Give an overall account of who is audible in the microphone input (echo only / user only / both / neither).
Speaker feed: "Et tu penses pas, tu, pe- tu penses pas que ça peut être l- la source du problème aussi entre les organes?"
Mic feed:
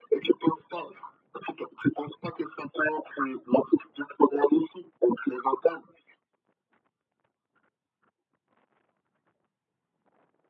echo only